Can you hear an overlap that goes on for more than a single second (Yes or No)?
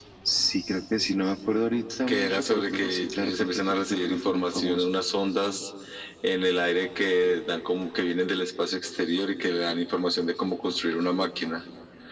Yes